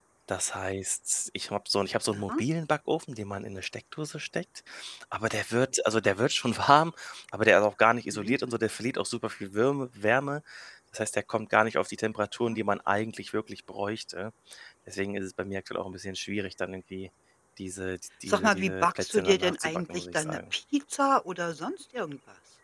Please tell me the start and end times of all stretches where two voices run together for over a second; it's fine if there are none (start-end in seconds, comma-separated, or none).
18.3-20.4